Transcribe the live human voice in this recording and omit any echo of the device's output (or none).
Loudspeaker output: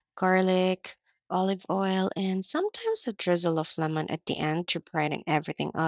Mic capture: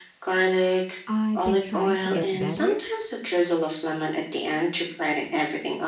I've been trying to get better